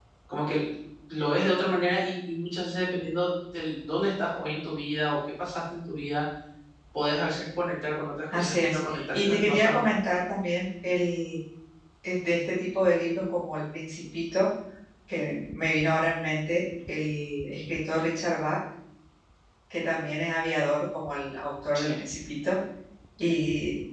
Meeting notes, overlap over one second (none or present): present